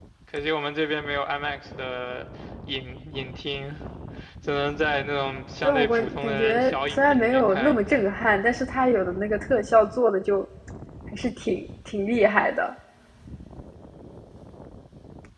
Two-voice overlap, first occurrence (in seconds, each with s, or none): 5.6 s